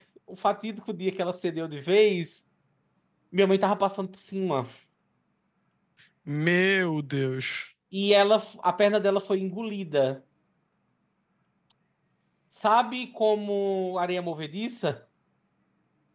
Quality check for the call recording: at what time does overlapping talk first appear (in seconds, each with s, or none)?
none